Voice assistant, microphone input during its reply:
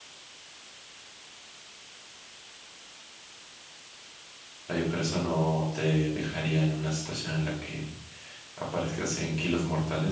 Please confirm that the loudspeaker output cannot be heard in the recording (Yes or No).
Yes